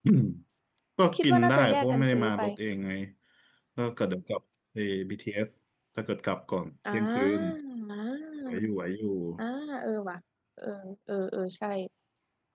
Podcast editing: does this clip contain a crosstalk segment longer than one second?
Yes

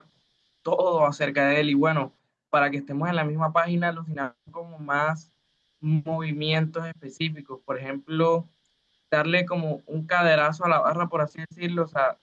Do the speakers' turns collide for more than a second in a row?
No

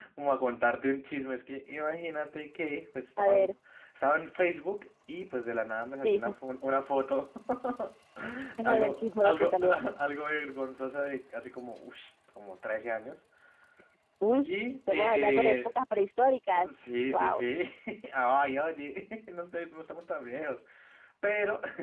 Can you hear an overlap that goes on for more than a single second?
Yes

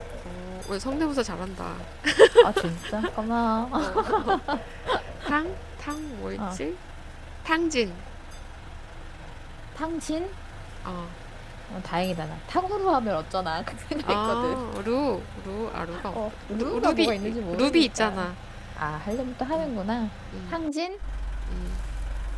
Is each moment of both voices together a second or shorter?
No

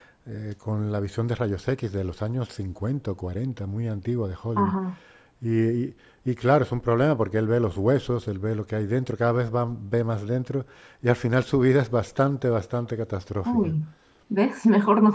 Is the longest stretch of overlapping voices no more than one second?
Yes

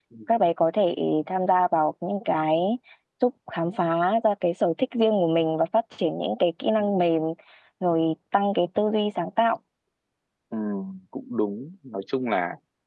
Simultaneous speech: No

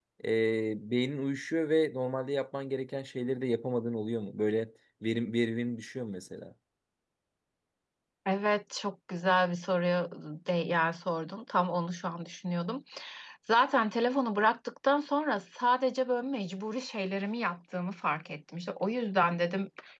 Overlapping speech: No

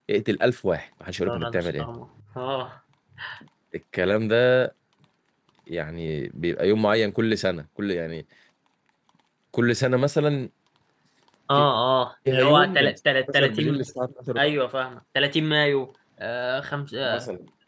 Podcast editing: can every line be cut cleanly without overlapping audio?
No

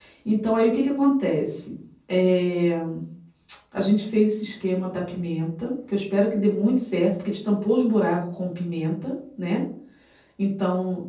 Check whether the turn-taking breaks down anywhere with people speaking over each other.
No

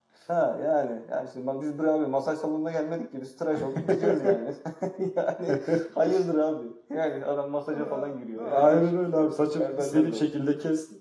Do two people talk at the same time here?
Yes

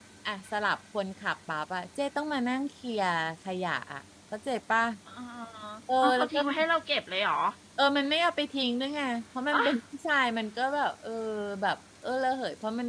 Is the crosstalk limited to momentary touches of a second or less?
Yes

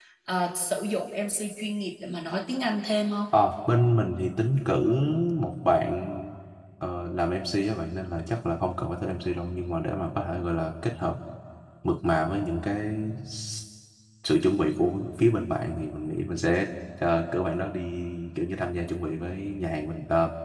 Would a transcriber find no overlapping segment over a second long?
Yes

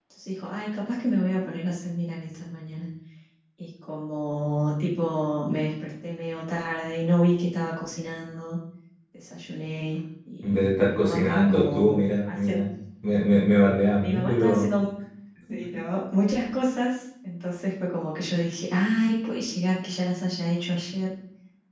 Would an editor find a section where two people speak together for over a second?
Yes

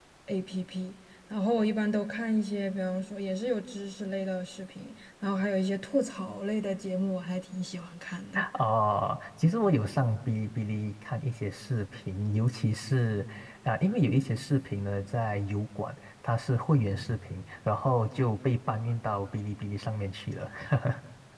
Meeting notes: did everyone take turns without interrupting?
Yes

